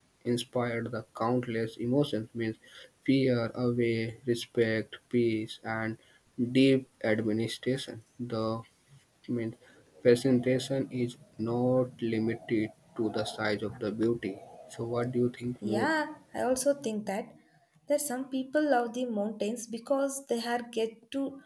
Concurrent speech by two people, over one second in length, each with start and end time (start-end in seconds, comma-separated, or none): none